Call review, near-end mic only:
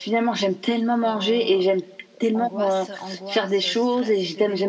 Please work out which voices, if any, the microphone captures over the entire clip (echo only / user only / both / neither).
both